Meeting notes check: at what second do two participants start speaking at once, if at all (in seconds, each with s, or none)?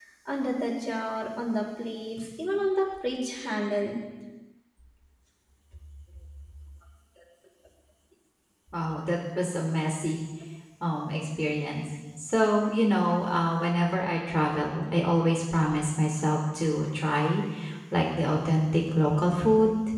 none